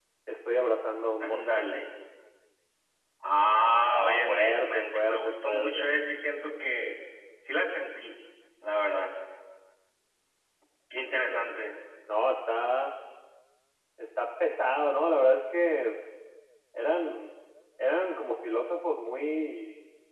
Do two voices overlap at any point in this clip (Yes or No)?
Yes